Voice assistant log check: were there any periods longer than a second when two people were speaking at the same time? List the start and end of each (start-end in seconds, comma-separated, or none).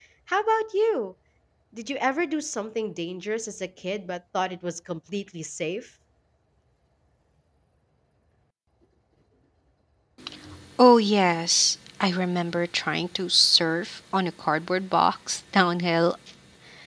none